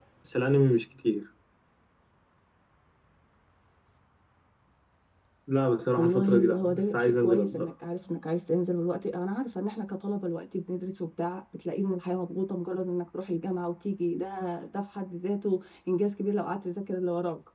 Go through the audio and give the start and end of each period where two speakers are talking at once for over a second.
6.0-7.7

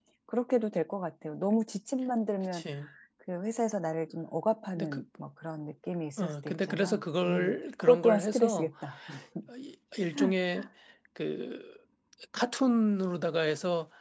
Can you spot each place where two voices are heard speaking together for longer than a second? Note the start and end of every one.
6.2-8.7

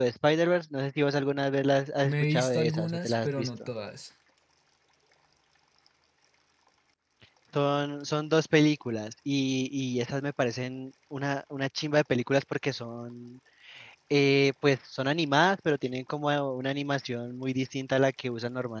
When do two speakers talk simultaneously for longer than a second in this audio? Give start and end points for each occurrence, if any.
2.0-3.5

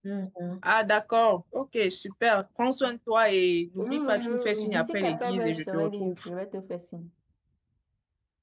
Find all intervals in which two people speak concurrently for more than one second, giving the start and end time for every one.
3.8-6.2

